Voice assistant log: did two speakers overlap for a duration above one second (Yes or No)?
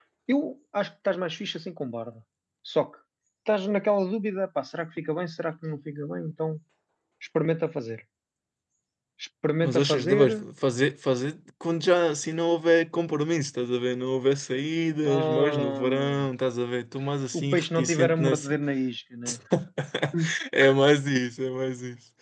Yes